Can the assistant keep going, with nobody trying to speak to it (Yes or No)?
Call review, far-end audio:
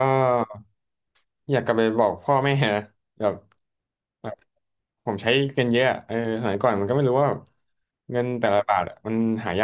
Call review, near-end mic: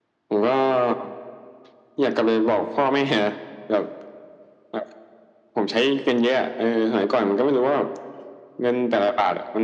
Yes